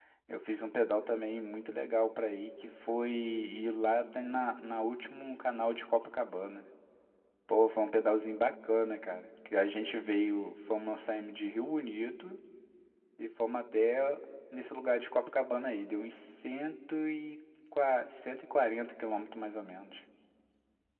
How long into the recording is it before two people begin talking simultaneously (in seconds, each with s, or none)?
none